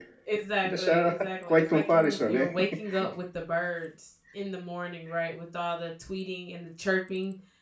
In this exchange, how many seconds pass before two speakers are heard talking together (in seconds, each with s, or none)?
0.6 s